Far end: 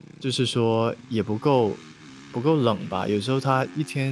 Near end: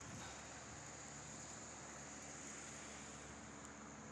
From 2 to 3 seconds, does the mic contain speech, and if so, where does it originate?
neither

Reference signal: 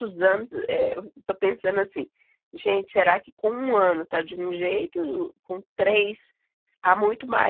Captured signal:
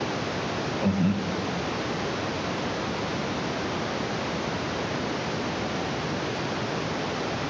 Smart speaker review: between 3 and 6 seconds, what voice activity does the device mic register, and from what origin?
neither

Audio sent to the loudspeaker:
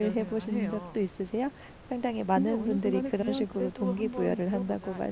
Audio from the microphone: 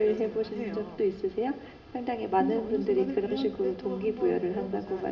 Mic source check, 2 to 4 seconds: echo only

